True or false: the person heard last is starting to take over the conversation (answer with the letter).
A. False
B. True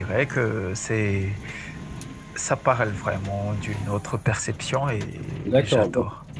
B